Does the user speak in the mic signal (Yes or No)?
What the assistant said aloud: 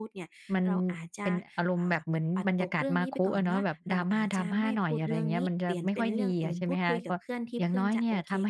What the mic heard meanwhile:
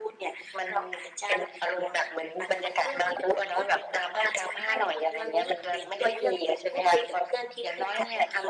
No